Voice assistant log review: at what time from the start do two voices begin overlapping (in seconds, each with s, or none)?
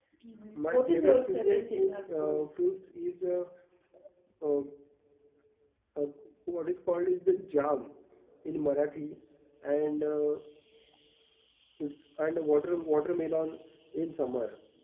0.6 s